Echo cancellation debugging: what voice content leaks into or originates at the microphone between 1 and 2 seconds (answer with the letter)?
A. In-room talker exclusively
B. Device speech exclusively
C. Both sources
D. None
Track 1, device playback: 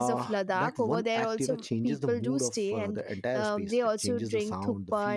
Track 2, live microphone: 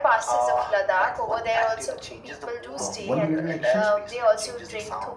B